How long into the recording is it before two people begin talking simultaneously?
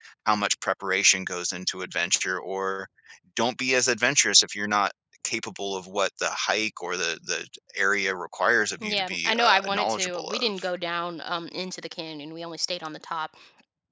8.8 s

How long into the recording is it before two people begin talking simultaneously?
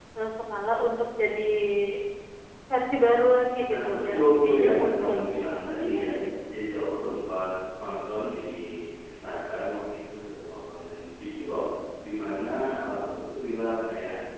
3.7 s

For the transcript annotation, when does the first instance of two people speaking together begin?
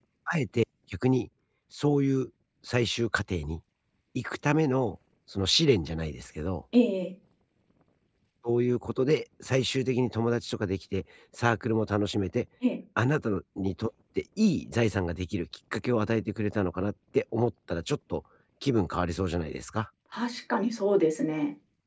none

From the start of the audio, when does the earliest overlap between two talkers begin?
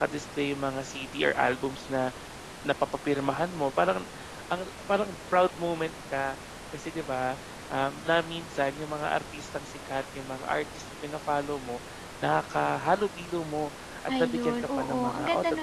14.1 s

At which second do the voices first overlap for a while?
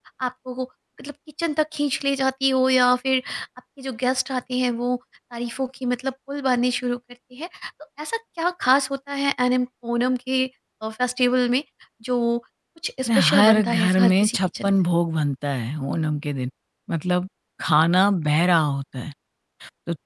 13.1 s

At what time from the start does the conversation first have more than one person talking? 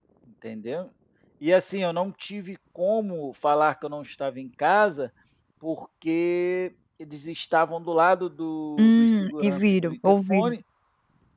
8.8 s

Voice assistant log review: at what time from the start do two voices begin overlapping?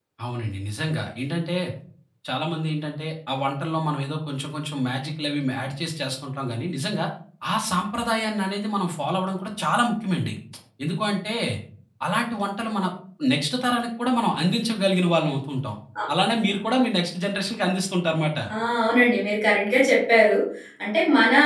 none

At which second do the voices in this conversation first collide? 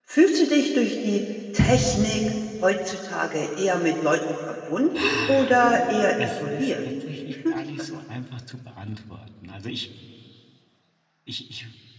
5.0 s

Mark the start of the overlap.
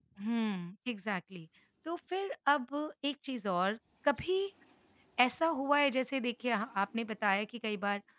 none

